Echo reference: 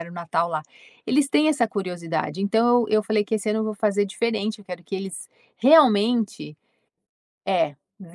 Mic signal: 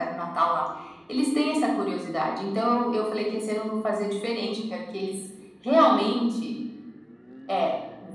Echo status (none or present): present